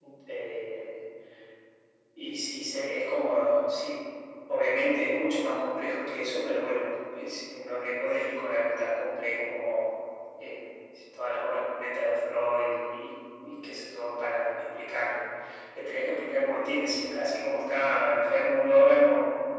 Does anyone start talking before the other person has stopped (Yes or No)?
No